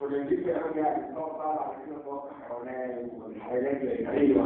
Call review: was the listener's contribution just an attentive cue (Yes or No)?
No